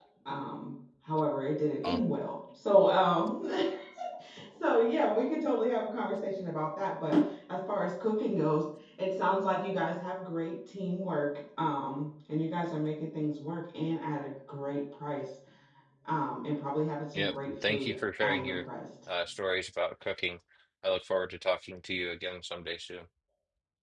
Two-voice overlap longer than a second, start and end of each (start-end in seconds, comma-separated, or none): 17.1-18.6